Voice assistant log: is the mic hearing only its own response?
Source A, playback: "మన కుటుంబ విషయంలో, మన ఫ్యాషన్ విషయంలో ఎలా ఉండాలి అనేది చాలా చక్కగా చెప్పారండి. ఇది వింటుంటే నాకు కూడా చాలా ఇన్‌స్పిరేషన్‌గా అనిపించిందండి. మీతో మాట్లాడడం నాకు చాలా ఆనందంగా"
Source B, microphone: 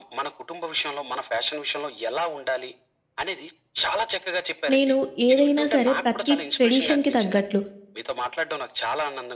No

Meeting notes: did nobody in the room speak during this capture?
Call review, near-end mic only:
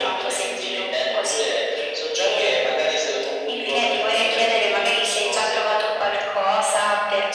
Yes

